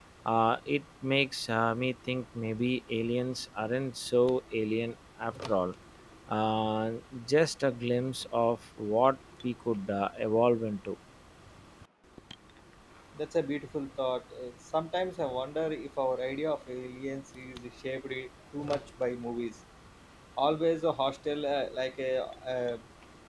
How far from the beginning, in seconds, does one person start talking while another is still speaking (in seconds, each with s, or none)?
none